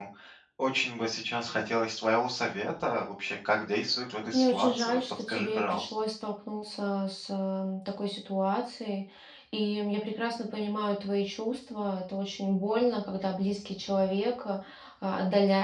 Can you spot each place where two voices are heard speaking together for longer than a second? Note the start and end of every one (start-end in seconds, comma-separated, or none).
4.3-5.9